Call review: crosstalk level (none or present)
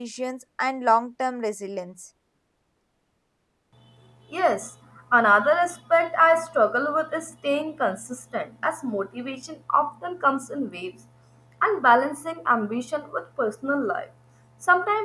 none